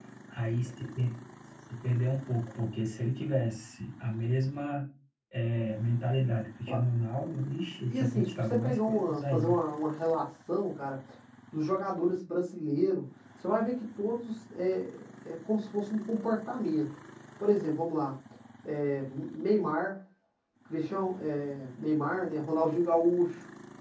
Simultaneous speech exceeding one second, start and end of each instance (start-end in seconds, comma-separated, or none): 7.9-9.6